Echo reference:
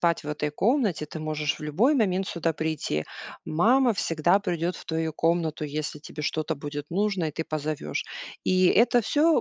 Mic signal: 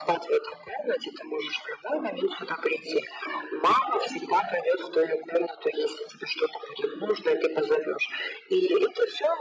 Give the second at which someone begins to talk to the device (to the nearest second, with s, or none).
none